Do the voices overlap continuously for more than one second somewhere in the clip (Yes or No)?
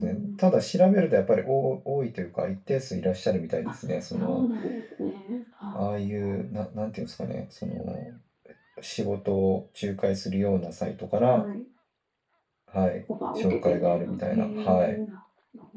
Yes